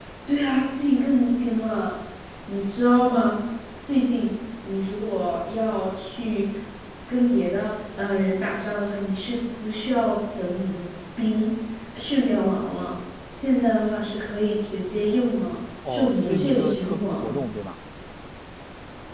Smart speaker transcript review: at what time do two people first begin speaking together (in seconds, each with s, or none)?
15.8 s